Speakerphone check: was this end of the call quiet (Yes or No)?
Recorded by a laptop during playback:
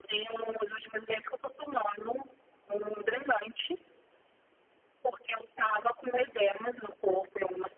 Yes